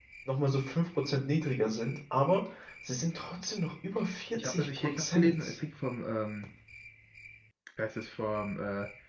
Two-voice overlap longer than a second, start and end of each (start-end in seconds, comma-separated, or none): 4.4-5.6